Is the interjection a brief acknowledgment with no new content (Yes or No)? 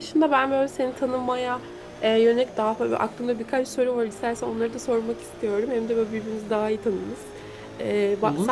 Yes